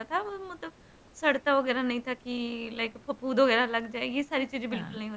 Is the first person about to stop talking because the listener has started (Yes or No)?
Yes